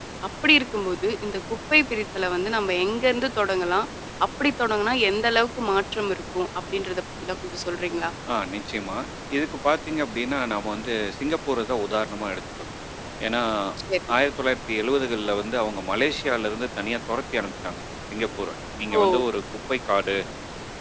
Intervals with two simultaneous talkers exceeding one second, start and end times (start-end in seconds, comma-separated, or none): none